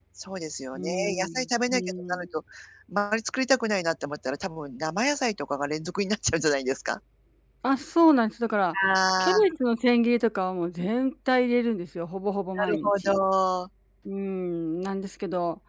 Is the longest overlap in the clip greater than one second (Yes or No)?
Yes